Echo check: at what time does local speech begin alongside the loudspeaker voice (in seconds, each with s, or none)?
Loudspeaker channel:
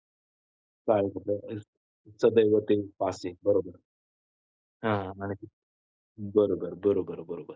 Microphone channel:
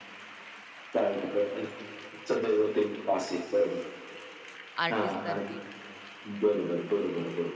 4.8 s